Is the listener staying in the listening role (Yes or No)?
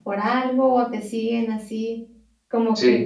Yes